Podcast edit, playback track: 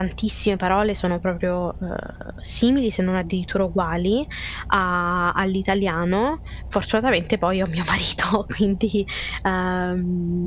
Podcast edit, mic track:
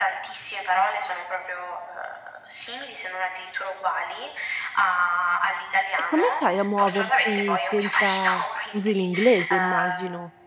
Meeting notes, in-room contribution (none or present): present